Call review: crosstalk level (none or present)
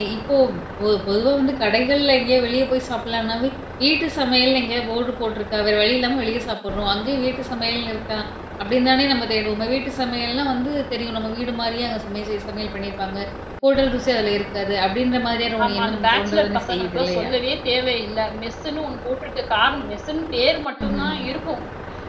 present